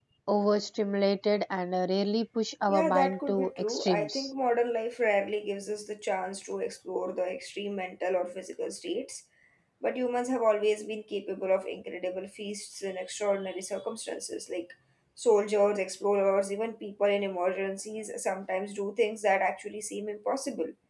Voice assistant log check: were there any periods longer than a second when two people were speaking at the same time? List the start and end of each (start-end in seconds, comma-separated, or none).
2.7-4.3